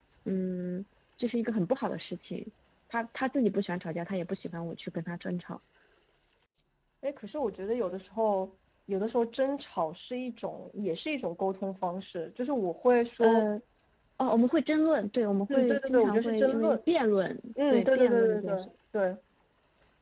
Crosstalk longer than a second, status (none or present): present